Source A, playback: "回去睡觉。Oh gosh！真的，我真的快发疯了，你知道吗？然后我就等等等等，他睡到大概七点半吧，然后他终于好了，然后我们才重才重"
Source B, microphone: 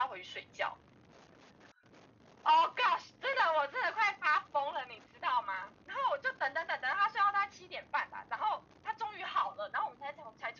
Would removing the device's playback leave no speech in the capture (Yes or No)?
Yes